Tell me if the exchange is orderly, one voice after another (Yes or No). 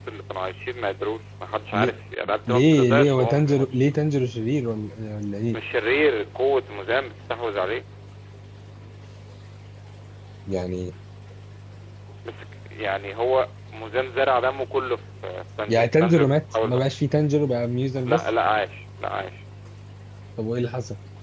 No